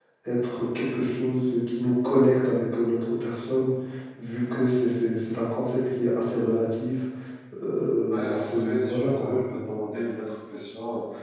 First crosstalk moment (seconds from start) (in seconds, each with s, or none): 8.1 s